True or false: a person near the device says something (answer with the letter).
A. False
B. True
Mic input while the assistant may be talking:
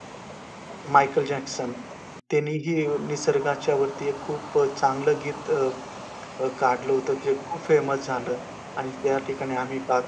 B